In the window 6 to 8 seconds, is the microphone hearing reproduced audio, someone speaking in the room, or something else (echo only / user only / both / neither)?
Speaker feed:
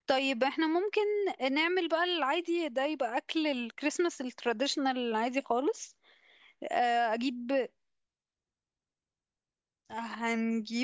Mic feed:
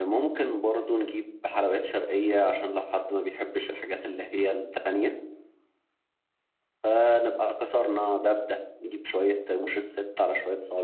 user only